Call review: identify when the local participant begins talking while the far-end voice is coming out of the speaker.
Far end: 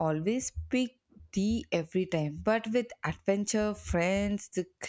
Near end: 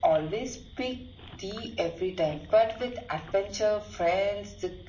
none

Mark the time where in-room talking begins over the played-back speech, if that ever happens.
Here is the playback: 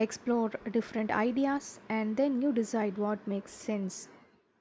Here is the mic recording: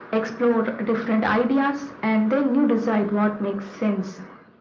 none

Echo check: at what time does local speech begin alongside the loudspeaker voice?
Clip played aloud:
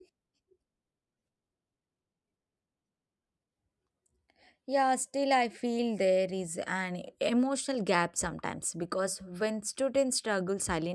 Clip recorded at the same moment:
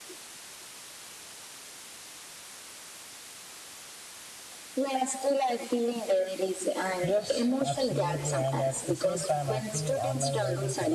7.0 s

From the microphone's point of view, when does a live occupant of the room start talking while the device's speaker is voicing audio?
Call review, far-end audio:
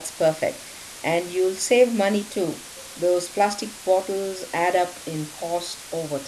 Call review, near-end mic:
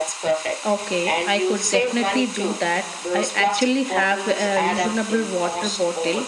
0.7 s

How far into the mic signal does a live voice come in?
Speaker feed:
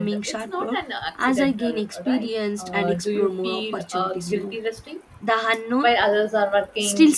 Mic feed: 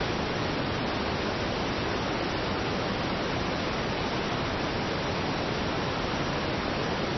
none

